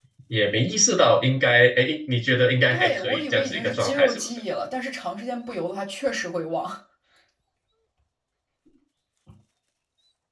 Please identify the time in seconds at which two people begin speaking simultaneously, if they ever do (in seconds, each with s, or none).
2.7 s